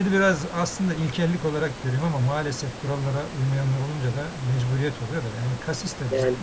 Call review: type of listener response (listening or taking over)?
listening